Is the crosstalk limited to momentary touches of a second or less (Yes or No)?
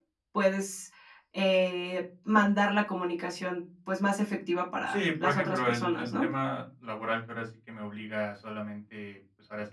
No